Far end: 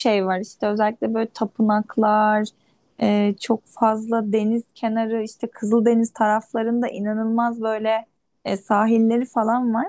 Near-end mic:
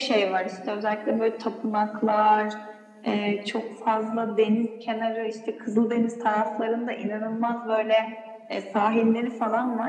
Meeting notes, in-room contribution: none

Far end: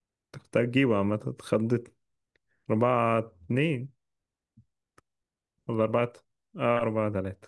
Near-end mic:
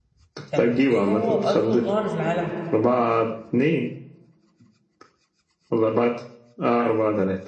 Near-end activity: present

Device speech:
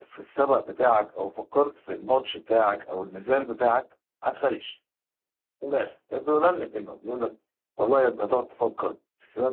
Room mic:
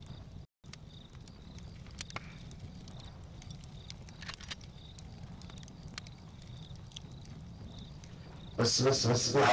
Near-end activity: present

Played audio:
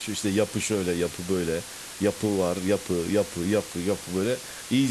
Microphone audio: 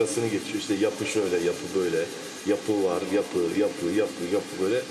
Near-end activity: present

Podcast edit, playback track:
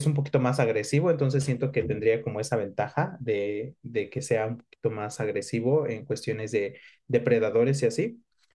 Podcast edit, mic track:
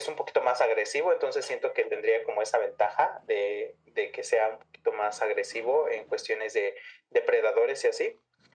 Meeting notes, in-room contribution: none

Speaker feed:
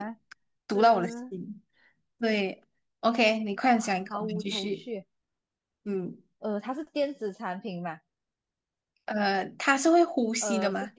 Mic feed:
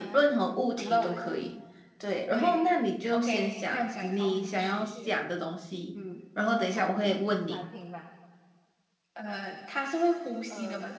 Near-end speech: present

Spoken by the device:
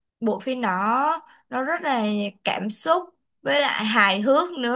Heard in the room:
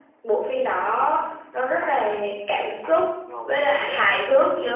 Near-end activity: present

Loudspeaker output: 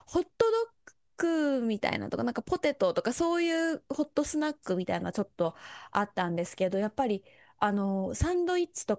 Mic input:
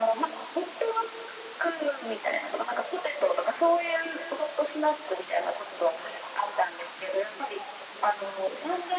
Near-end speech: none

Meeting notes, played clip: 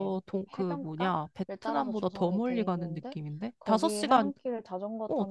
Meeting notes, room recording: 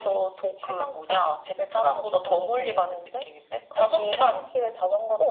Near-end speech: none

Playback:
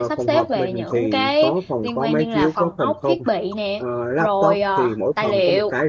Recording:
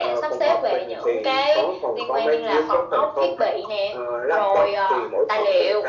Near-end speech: none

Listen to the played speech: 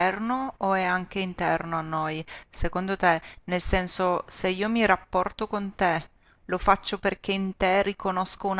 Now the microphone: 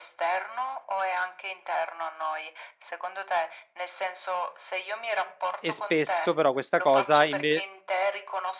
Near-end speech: present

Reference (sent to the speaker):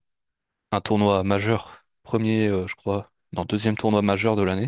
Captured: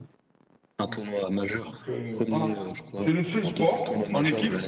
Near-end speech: present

